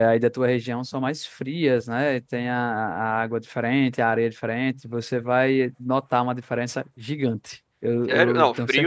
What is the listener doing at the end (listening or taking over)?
taking over